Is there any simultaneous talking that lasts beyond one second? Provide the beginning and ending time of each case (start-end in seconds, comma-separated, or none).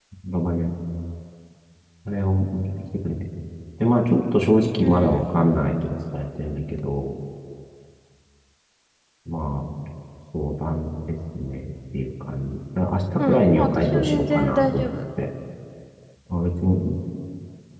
13.2-14.9